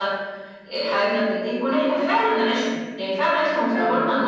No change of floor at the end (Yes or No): Yes